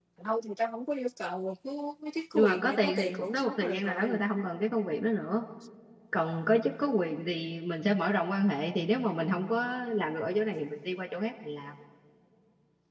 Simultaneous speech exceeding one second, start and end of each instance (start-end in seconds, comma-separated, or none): 2.3-4.2